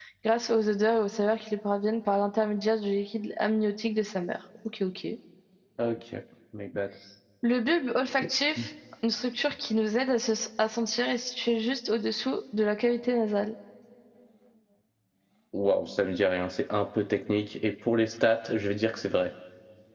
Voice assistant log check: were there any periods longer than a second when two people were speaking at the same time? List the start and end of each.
none

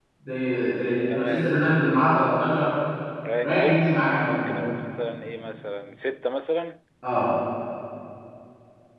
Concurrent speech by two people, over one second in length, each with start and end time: 3.4-4.7

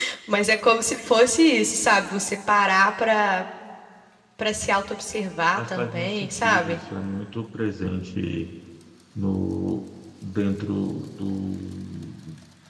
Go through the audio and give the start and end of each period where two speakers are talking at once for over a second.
5.5-6.8

